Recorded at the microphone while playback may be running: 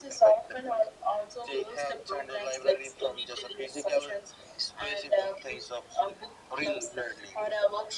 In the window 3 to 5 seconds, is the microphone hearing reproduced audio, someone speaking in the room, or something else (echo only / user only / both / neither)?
echo only